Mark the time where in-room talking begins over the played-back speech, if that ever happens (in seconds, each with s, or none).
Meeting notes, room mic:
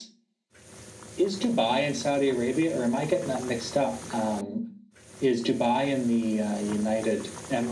none